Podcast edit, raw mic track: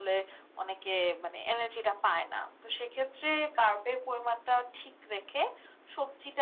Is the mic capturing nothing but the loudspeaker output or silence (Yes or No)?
Yes